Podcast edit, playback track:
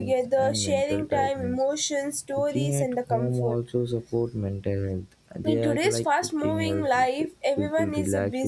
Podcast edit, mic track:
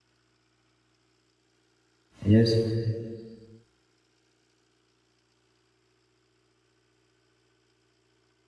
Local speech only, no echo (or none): Yes,